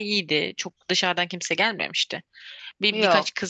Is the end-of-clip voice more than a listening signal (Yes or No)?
No